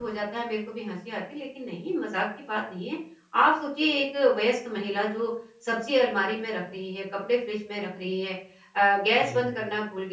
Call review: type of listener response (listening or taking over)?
listening